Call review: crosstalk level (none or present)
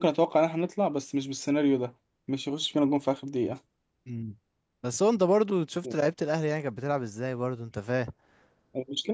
none